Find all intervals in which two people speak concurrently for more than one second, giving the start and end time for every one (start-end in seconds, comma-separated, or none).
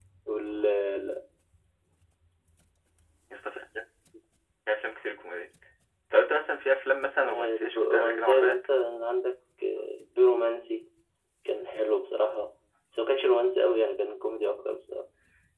7.2-8.7